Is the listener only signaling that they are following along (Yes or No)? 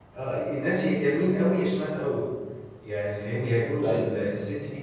Yes